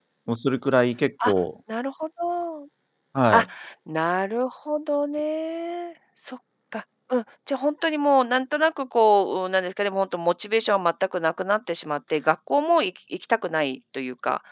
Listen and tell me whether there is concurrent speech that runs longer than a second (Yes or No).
No